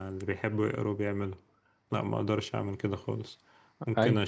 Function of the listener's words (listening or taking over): listening